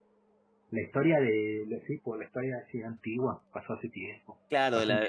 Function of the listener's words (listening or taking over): taking over